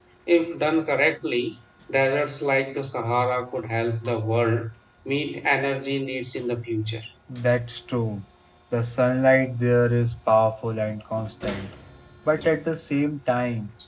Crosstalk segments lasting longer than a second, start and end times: none

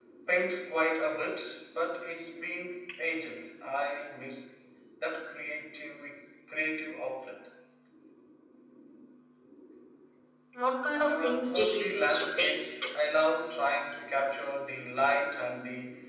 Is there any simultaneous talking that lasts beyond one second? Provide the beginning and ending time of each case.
10.9-12.7

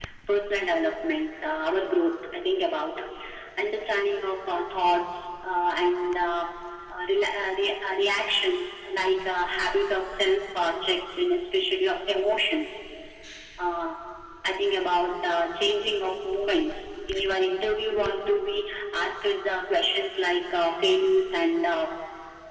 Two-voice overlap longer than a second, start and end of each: none

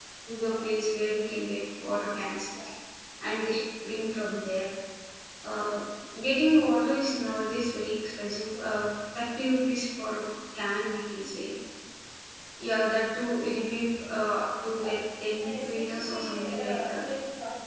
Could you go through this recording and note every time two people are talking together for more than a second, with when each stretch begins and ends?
15.4-17.0

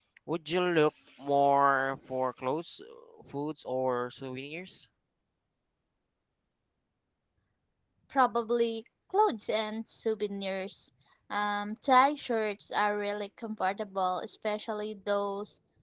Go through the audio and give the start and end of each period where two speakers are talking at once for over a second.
none

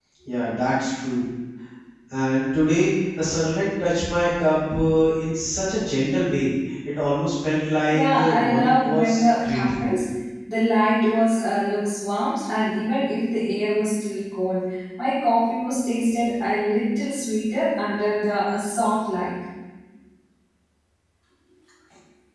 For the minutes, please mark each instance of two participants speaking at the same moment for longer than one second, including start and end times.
7.9-10.0

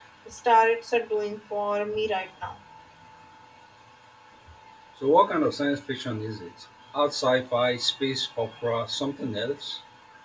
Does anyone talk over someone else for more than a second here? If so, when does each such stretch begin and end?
none

